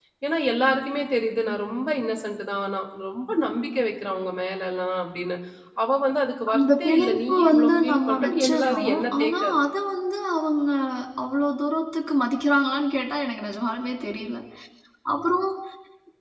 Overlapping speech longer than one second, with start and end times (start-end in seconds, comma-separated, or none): 6.5-9.5